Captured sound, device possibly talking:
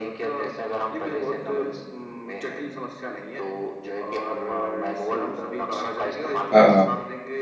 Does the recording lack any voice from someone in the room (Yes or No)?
No